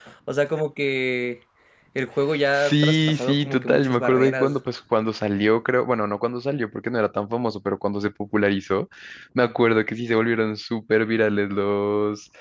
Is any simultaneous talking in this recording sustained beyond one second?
Yes, from 2.5 s

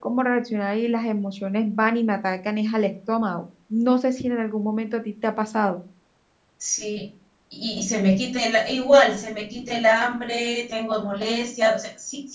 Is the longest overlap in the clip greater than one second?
No

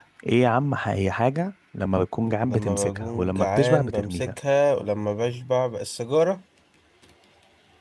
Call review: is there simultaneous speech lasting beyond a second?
Yes, from 2.5 s

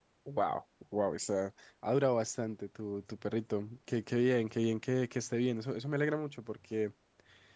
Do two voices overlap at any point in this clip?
No

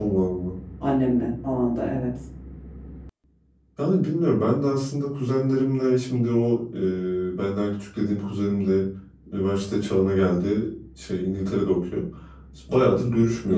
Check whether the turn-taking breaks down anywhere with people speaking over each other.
No

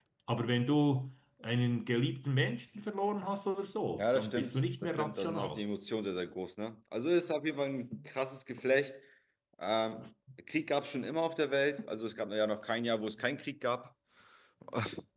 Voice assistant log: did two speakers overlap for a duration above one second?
Yes, from 3.9 s

